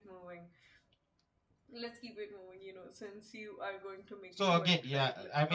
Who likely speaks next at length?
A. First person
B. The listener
B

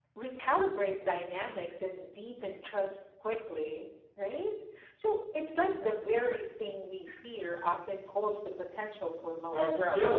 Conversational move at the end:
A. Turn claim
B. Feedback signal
A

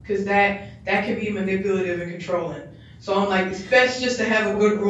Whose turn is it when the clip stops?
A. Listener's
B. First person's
B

